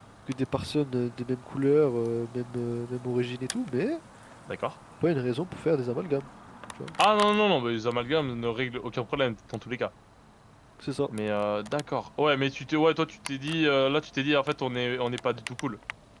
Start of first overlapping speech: none

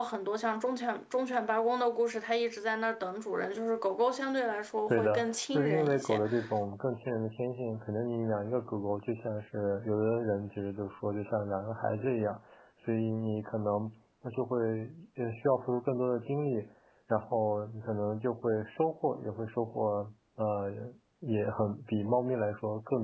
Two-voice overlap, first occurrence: 5 s

